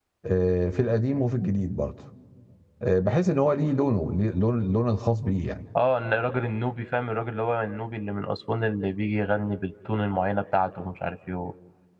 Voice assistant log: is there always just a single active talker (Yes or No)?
Yes